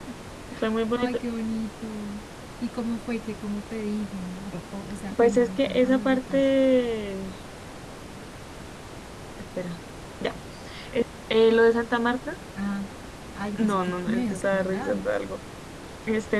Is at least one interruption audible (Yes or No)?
Yes